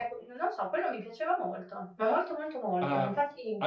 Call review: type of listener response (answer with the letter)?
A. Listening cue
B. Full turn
B